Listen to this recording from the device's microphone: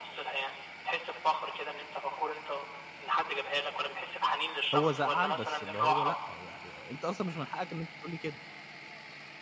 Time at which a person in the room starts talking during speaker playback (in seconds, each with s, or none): 4.7 s